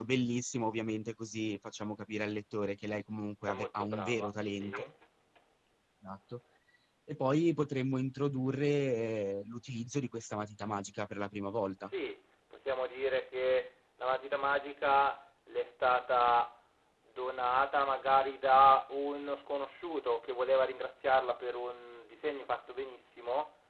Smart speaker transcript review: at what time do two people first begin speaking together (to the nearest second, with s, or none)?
3 s